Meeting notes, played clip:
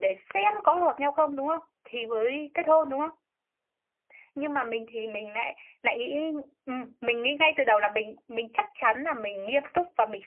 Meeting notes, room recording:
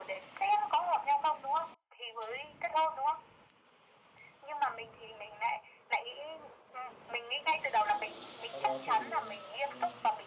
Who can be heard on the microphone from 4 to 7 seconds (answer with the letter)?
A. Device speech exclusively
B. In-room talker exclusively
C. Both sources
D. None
A